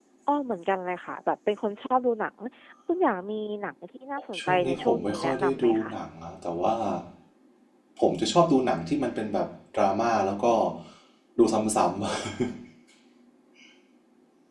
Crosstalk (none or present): present